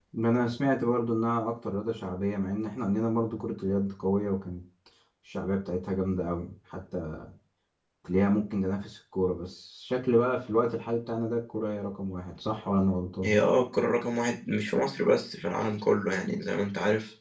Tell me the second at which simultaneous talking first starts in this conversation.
none

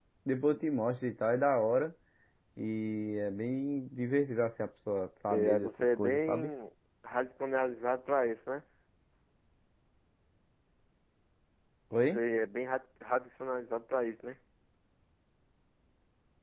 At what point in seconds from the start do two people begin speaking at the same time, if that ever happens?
5.3 s

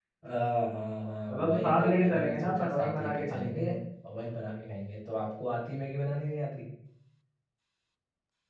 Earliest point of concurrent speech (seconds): 1.3 s

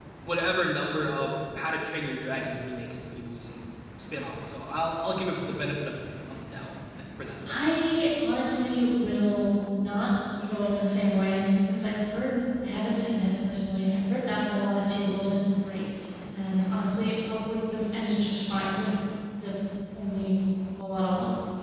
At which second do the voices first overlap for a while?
none

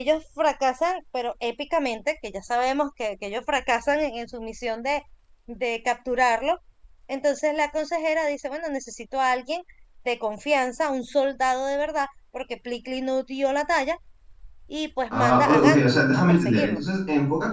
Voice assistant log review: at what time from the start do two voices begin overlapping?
15.1 s

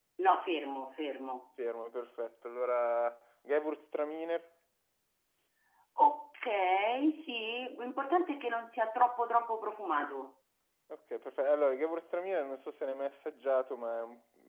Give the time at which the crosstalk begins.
none

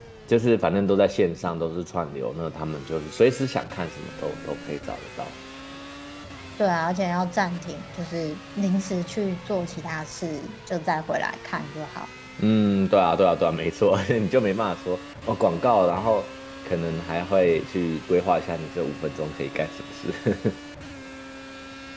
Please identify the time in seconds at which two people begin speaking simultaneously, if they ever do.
none

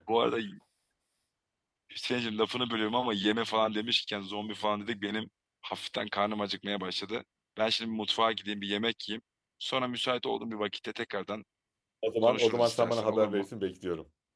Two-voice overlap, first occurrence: 12.2 s

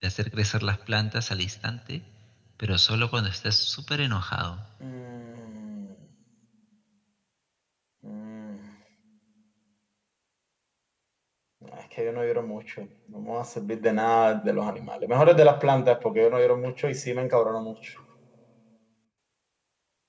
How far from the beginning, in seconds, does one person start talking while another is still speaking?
none

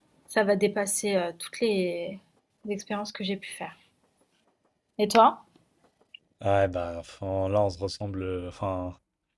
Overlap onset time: none

